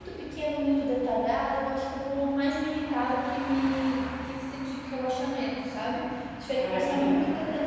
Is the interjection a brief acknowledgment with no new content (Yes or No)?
Yes